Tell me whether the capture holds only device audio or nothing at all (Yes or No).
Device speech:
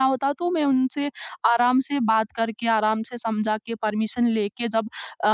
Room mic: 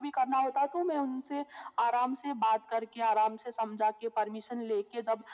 Yes